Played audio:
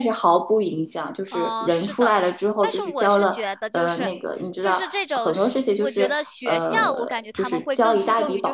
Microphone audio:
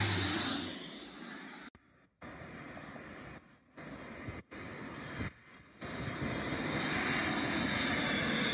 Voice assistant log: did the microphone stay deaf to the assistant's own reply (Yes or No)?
Yes